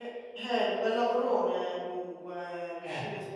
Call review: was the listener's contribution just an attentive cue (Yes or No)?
Yes